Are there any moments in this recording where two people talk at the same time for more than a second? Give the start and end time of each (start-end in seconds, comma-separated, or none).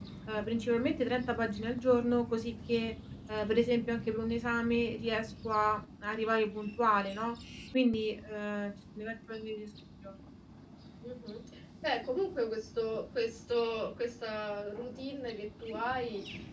none